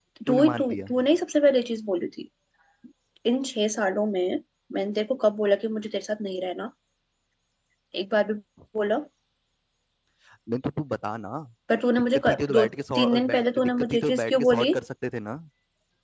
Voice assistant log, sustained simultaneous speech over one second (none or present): present